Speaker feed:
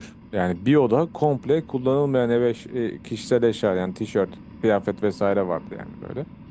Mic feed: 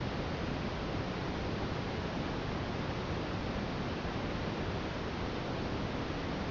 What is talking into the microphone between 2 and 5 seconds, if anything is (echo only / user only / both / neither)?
neither